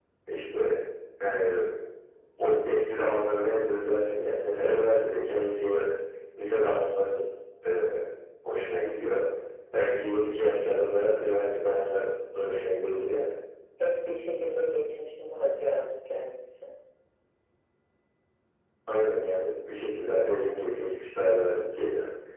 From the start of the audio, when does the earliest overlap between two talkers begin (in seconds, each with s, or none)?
none